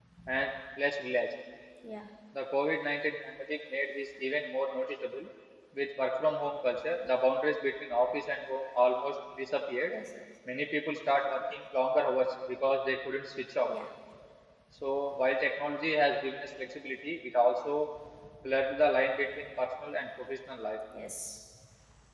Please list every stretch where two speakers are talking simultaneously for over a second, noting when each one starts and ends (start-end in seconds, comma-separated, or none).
none